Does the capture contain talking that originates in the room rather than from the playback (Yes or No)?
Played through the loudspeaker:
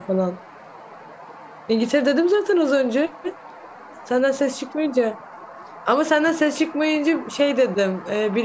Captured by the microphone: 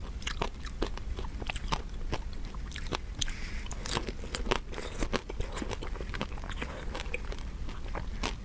No